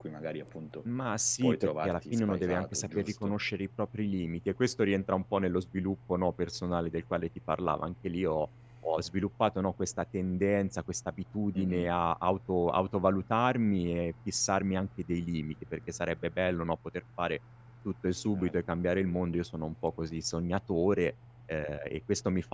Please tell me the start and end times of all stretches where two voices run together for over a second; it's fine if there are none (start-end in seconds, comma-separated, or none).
1.4-3.3